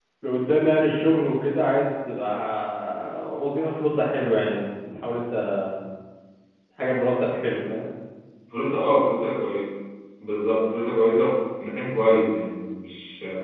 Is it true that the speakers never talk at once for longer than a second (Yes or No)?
Yes